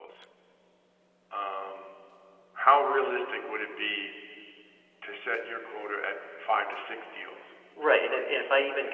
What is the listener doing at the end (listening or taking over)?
taking over